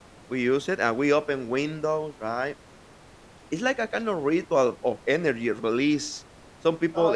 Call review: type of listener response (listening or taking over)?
listening